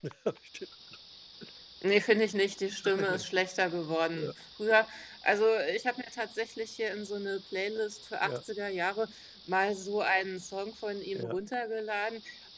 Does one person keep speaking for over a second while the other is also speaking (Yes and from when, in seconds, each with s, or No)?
No